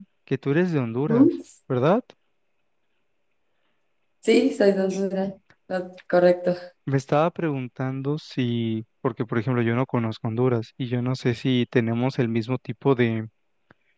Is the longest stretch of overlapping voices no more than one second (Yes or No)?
Yes